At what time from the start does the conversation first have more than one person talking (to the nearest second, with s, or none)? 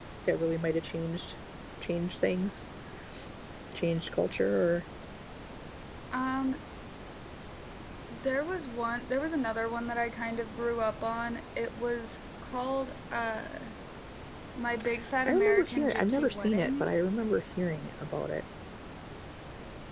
15 s